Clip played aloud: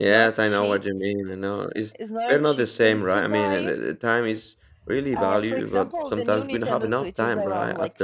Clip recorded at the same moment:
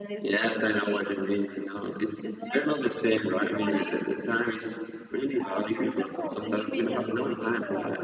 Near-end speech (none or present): none